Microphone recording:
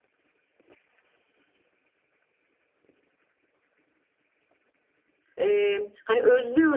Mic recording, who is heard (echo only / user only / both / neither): user only